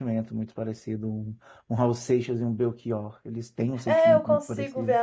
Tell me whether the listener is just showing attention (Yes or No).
No